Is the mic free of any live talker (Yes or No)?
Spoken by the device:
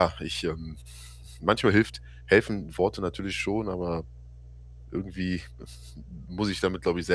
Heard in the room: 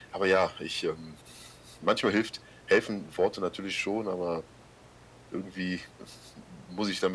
Yes